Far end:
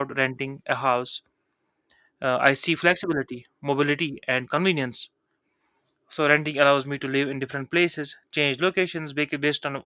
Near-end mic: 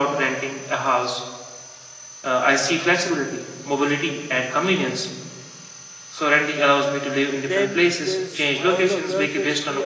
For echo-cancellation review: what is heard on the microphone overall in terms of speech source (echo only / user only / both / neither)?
both